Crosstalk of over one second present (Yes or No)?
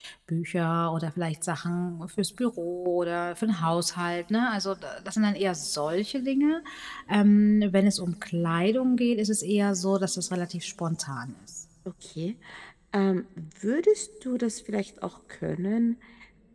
No